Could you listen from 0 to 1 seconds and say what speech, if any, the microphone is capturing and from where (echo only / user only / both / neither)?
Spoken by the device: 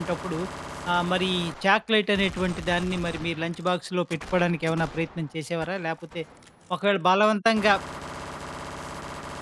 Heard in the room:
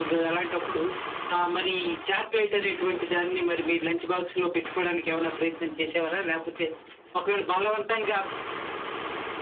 echo only